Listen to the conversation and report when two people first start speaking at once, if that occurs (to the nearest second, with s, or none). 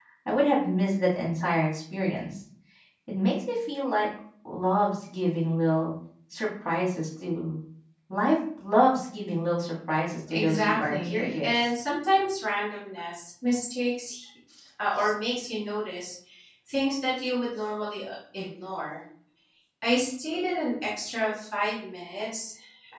10 s